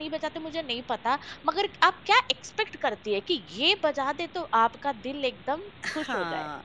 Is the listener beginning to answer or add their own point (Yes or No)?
Yes